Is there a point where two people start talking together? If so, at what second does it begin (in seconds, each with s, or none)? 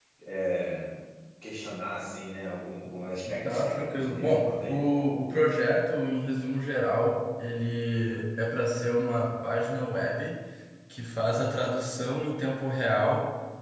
3.3 s